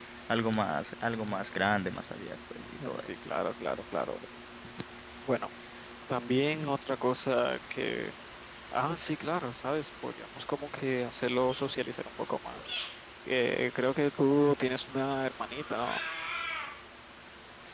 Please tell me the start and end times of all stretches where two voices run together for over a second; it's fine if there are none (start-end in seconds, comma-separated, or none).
none